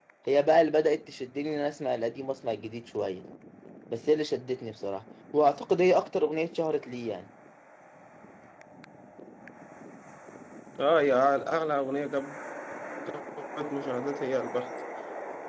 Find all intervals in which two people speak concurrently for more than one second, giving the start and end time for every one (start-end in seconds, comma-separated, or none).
none